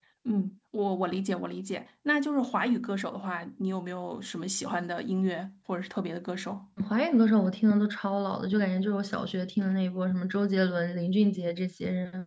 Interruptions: none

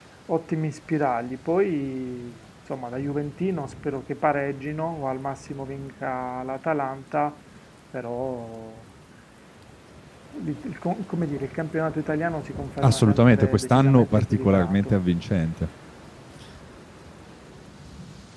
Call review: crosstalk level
present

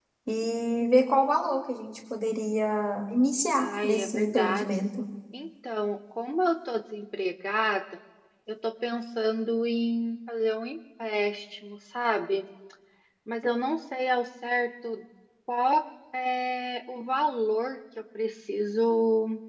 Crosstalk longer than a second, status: present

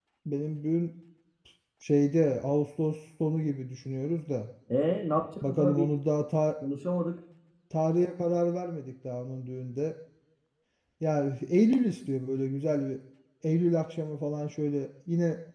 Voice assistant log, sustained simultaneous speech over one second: none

